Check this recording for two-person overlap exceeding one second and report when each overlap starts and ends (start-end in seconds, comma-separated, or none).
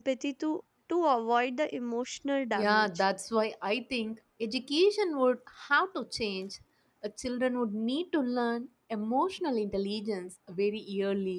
none